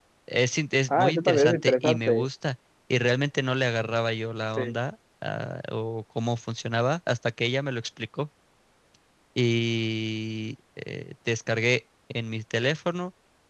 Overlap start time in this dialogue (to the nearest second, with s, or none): 1 s